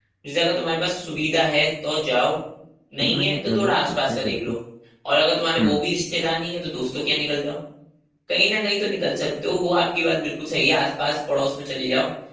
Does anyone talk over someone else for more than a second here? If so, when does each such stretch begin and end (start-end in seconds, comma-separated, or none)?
3.1-4.6